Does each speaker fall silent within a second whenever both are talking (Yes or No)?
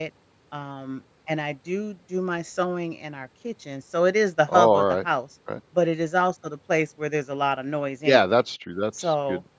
Yes